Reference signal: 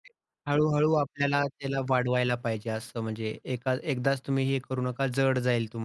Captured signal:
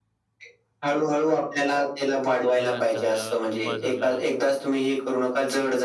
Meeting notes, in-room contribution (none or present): present